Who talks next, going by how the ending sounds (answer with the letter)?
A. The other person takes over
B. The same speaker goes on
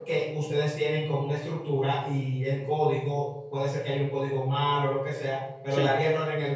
B